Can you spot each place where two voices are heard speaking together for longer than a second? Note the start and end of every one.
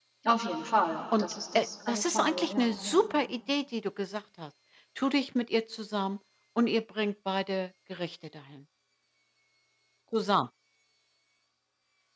1.2-3.1

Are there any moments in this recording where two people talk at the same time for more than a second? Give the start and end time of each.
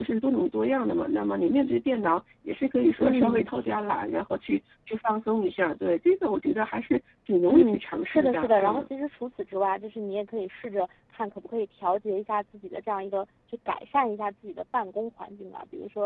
7.5-8.9

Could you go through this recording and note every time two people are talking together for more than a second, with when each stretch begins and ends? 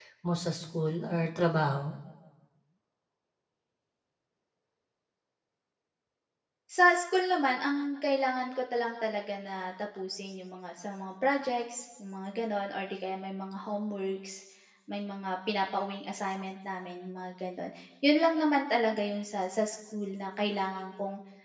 none

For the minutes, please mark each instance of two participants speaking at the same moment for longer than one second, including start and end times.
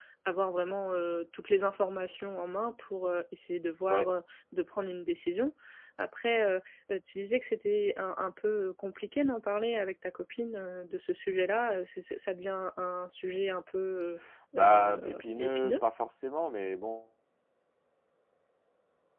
14.6-15.8

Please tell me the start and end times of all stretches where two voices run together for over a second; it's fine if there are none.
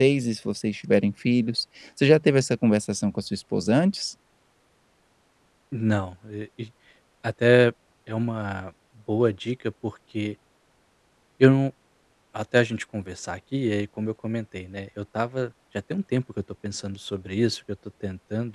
none

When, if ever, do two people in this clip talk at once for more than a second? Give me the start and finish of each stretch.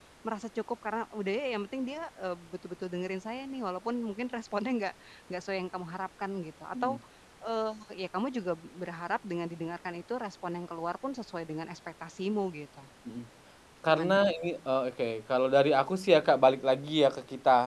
none

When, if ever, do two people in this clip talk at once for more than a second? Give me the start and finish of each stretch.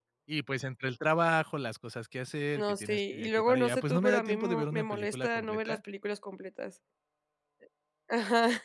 2.5-5.8

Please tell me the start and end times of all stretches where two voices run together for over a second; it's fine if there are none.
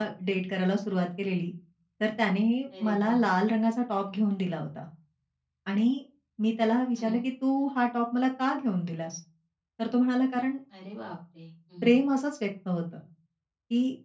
none

